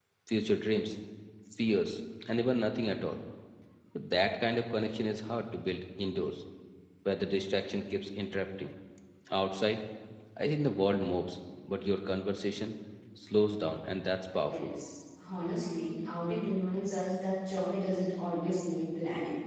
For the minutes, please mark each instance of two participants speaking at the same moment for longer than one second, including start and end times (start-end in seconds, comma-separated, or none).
none